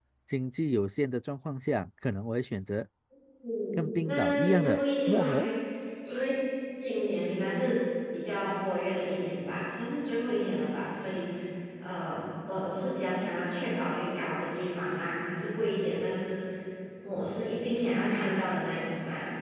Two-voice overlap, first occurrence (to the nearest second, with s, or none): 4 s